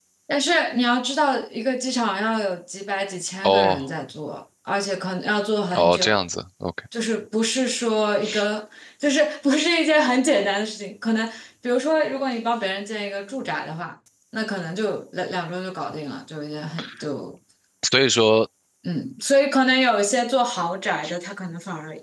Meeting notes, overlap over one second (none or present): none